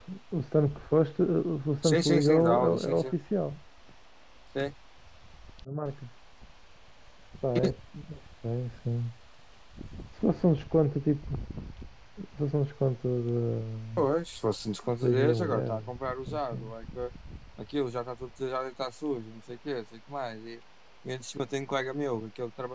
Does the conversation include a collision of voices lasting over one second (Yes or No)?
Yes